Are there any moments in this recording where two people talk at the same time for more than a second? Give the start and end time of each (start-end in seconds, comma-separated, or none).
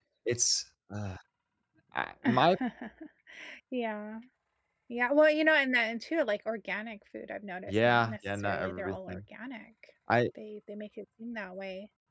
7.7-9.2